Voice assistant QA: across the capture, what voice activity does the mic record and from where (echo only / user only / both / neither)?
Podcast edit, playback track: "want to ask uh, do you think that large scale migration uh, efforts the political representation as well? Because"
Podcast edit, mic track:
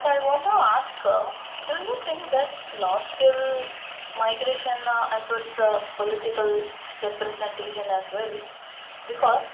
echo only